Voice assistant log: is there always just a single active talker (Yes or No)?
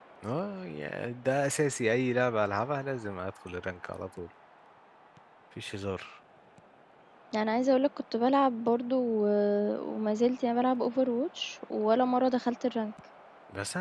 Yes